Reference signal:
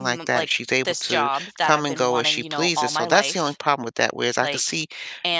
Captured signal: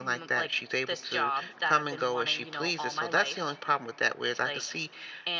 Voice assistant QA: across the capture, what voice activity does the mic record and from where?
echo only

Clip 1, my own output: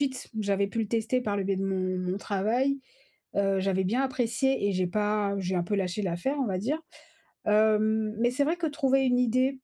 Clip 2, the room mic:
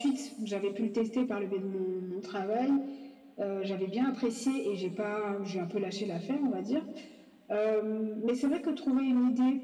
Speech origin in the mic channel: echo only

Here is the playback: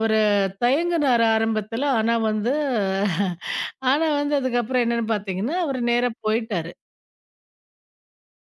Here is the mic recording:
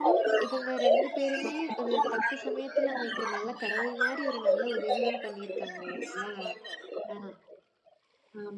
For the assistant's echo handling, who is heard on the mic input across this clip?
both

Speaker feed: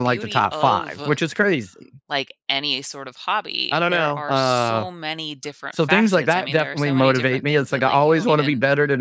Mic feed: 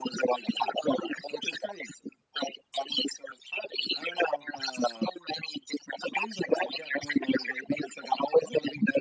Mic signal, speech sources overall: echo only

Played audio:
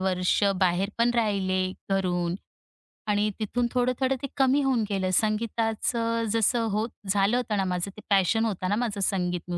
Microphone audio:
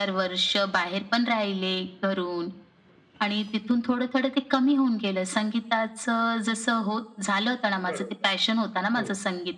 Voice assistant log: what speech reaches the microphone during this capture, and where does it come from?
both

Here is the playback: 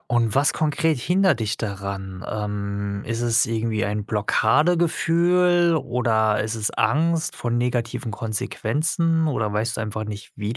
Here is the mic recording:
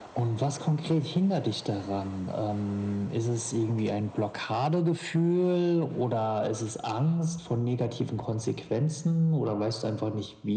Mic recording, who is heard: echo only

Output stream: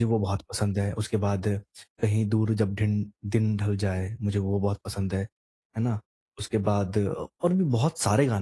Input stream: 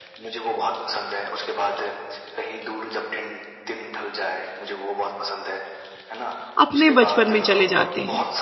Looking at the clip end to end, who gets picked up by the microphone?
both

